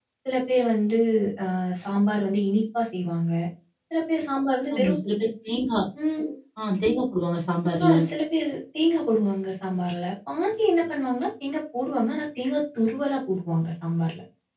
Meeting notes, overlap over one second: none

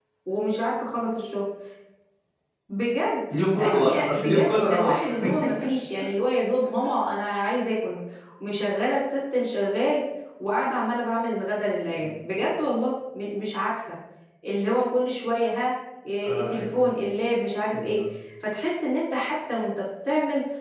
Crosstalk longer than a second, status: present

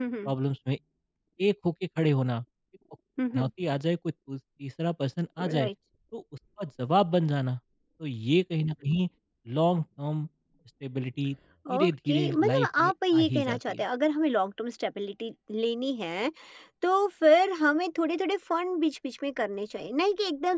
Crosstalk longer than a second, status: present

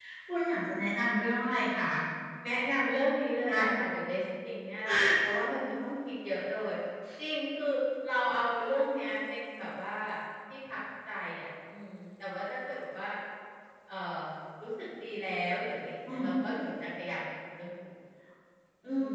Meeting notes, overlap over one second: none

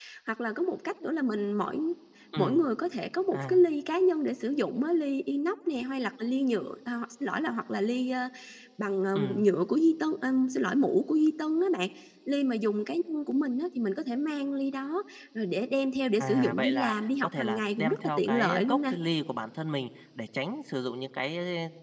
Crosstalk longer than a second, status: present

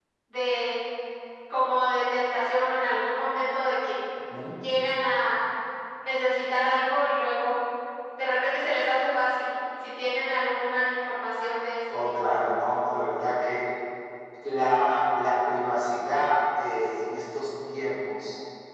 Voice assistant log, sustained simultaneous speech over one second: none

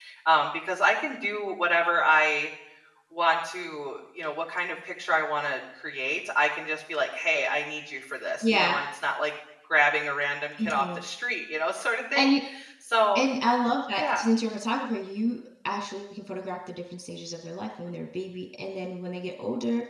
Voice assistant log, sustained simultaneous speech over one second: none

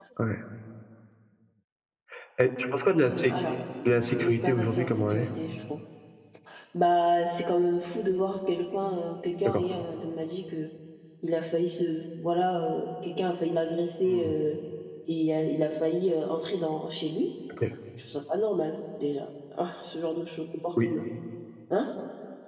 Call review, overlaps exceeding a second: present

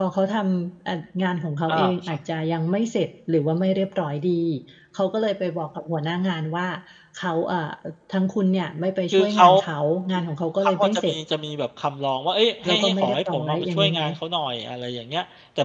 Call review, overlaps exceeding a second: present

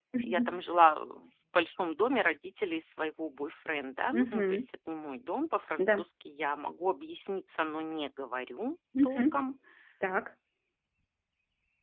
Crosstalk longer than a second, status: none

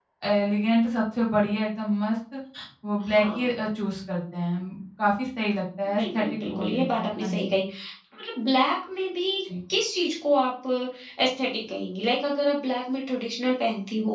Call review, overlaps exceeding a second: present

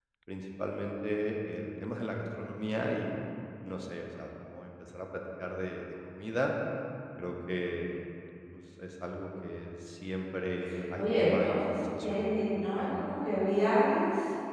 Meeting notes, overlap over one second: present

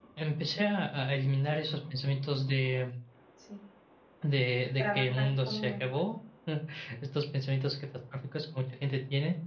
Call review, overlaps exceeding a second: present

